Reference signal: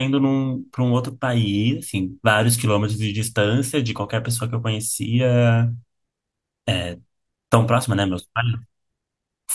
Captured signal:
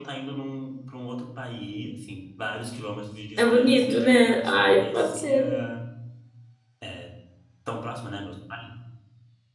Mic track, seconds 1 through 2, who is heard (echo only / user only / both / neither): echo only